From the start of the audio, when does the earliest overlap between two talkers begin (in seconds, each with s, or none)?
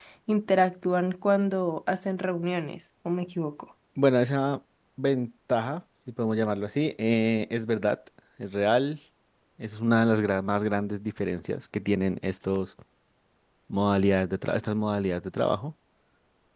none